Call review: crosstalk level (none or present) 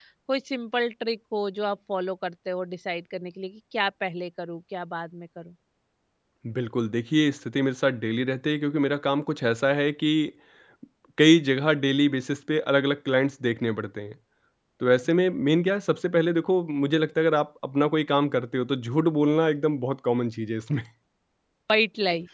none